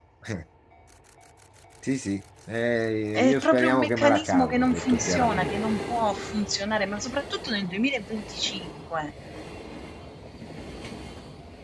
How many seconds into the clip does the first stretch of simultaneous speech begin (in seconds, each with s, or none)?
3.1 s